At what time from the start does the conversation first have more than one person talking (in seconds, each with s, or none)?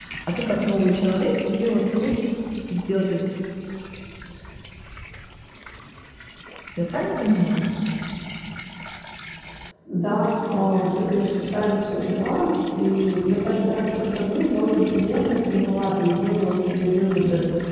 none